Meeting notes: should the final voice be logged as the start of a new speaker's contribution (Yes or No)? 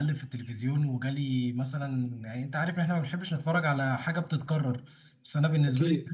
No